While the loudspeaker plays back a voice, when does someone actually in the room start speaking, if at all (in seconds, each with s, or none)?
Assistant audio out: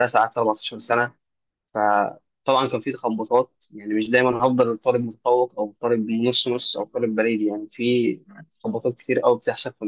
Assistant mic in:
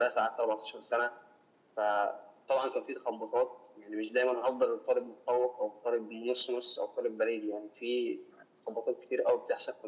none